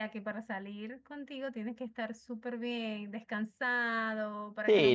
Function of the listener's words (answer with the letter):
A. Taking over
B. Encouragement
A